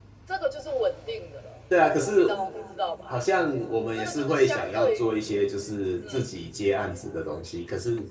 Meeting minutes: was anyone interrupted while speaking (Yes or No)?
Yes